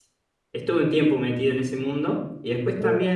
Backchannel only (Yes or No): Yes